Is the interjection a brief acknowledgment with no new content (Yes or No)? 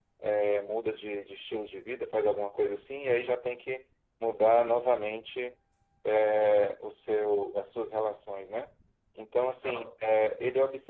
Yes